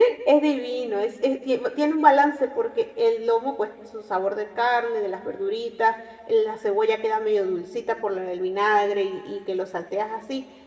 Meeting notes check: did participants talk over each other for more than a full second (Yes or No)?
No